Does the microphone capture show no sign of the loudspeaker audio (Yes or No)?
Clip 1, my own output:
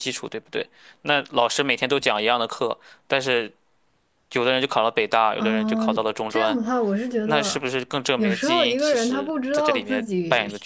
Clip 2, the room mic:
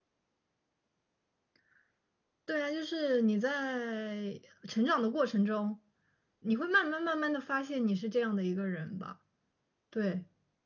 Yes